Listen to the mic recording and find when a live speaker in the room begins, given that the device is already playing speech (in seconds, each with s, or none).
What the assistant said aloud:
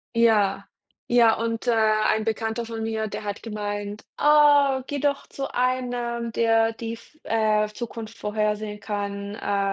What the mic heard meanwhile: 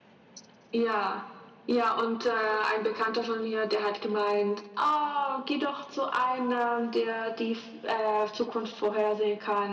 none